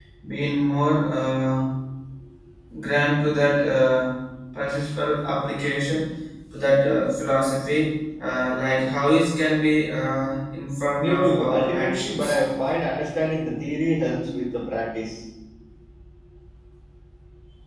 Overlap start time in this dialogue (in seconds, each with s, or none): 11.0 s